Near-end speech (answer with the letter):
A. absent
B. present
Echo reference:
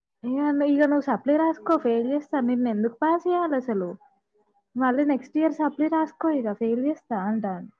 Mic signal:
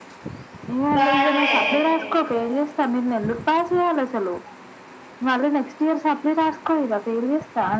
B